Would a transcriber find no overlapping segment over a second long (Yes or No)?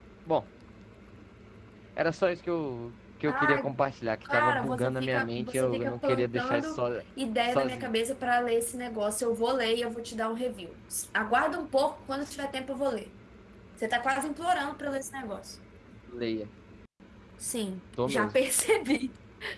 No